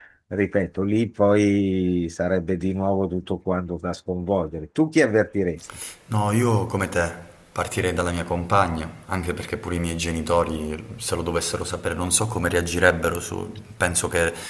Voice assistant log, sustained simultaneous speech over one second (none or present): none